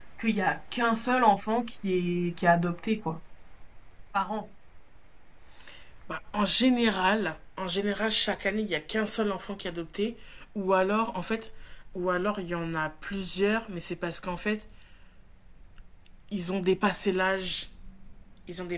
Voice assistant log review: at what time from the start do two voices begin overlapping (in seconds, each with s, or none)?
none